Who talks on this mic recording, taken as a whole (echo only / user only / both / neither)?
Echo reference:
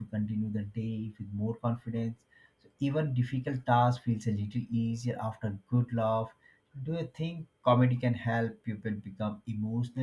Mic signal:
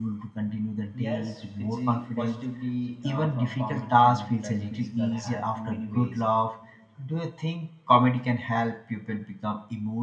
both